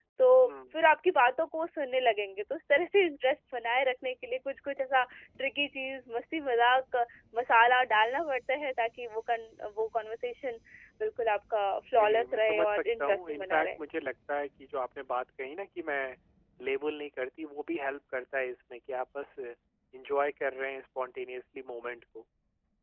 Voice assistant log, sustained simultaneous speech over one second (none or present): present